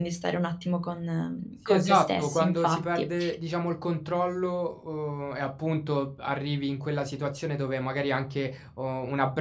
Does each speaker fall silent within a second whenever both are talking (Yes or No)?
No